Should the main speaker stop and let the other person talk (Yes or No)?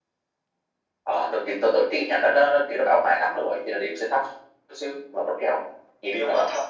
Yes